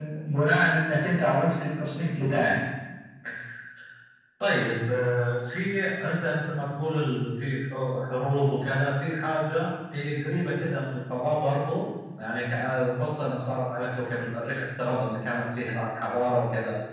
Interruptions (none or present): none